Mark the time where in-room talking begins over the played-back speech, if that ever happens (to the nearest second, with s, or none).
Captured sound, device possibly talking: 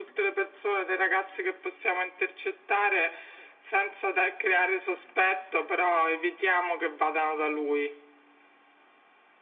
none